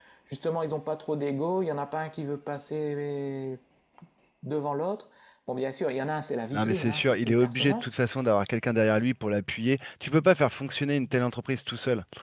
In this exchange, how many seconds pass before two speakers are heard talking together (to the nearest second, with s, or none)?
7 s